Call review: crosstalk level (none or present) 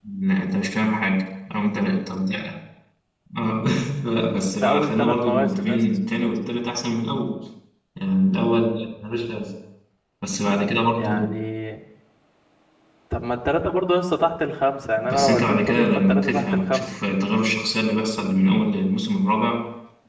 present